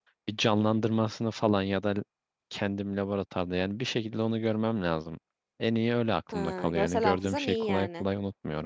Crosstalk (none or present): present